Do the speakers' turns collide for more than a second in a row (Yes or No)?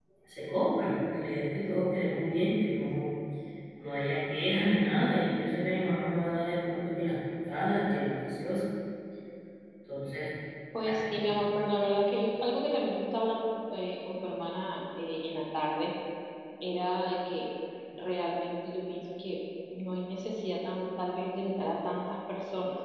No